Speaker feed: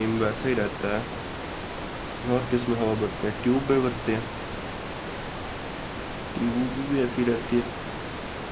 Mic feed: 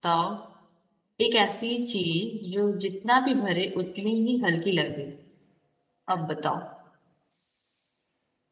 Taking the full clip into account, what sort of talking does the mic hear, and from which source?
user only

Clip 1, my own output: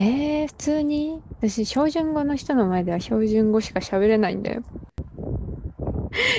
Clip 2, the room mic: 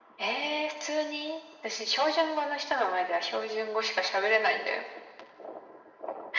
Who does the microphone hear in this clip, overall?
echo only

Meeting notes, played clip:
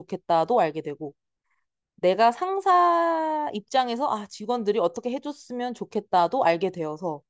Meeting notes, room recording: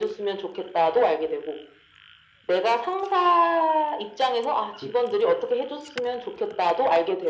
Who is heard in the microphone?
both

